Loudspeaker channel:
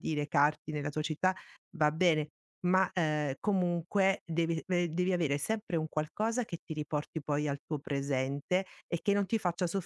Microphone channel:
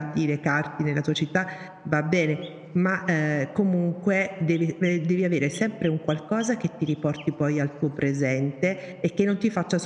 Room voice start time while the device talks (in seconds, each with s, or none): none